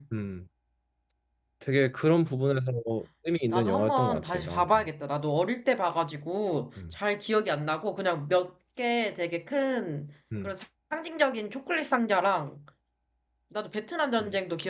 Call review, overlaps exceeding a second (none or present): present